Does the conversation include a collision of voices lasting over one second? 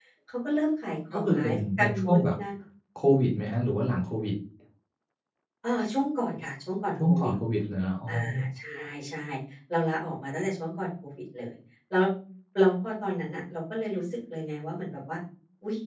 Yes, from 1.1 s

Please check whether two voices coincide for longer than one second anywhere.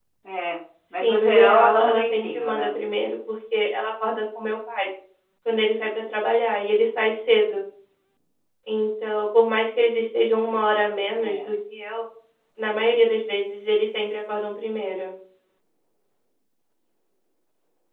Yes, from 1.0 s

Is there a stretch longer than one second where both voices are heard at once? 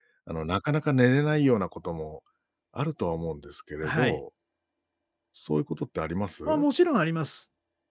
No

